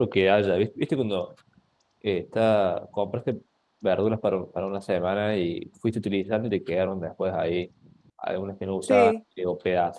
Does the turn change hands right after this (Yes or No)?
No